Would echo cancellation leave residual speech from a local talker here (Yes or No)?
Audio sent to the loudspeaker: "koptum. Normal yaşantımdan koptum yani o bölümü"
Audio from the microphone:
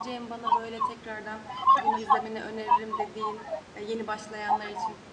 Yes